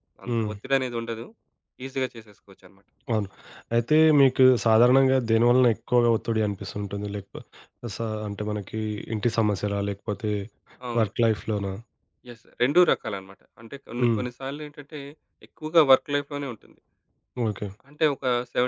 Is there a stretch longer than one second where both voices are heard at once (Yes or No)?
No